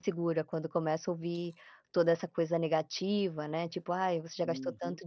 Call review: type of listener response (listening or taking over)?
listening